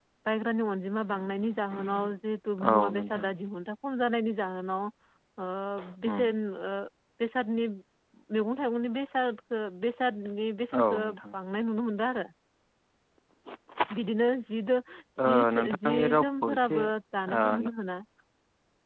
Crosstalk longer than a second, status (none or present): present